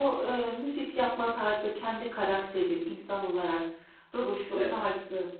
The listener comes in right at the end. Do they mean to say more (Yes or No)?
No